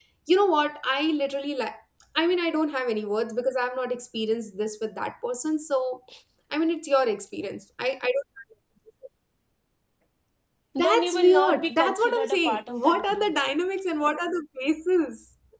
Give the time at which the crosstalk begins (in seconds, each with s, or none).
10.8 s